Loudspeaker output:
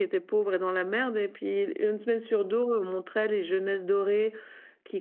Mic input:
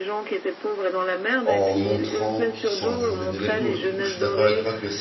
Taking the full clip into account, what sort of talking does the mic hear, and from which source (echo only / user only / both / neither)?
both